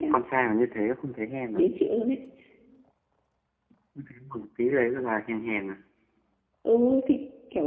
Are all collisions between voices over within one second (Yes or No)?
Yes